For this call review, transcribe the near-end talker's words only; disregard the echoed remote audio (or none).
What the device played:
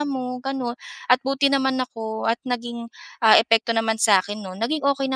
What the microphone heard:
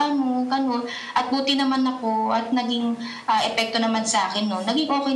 none